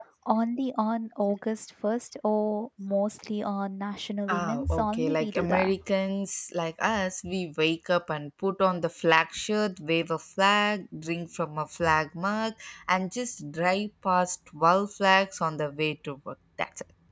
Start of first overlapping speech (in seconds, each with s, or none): 4.3 s